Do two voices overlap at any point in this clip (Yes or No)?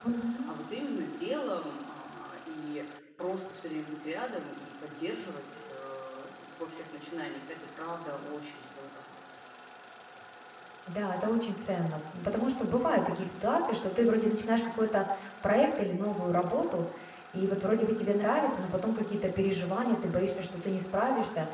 No